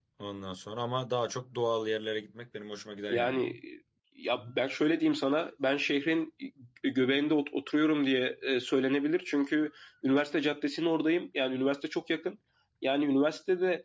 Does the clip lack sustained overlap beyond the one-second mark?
Yes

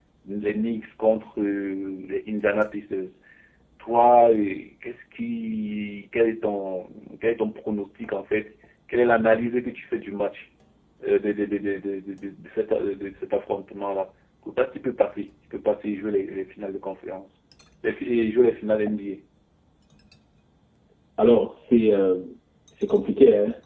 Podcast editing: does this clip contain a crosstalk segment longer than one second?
No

